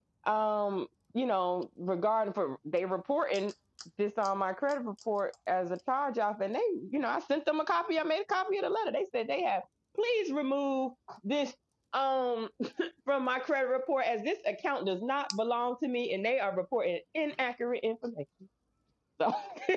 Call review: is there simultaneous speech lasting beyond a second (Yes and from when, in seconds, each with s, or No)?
No